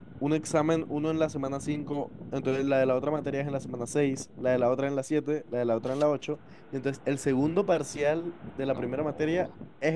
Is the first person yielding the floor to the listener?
No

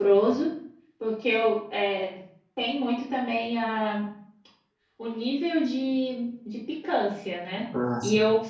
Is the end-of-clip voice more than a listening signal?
No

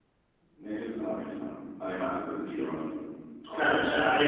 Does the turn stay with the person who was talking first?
No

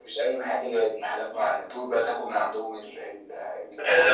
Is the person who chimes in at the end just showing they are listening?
No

